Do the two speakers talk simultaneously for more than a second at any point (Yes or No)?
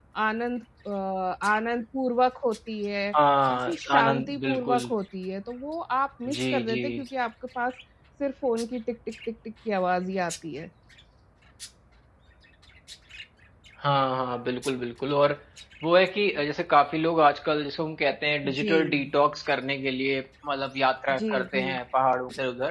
Yes